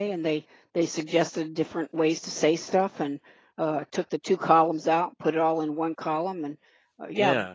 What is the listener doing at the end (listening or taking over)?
listening